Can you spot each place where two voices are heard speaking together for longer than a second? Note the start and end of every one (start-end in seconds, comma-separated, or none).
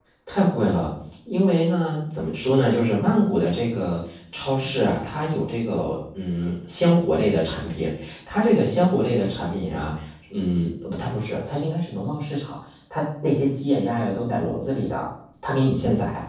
none